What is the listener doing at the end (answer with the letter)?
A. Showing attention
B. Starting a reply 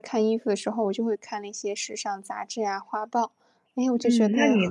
B